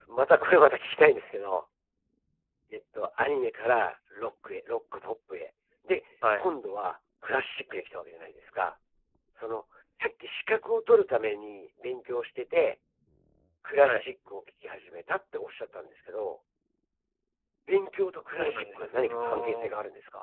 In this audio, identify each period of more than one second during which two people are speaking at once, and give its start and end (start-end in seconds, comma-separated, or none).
18.3-19.7